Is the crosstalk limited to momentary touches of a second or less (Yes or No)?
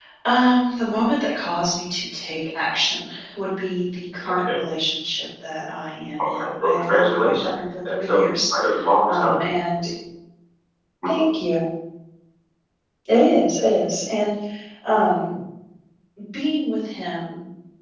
No